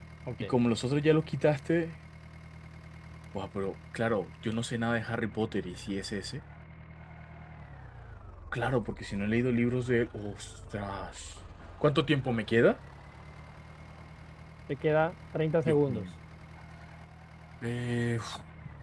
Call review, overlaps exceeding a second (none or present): none